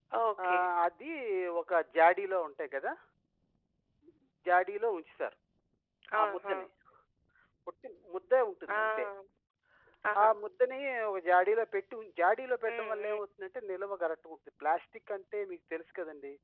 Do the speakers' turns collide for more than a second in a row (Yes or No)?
No